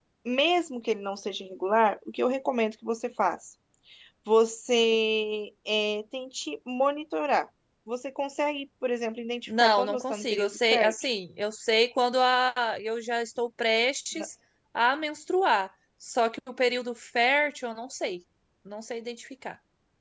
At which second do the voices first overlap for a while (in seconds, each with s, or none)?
9.5 s